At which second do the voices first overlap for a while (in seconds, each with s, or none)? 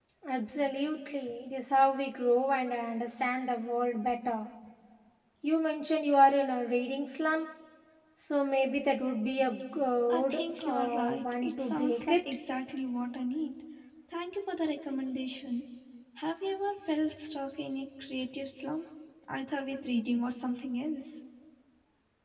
10.1 s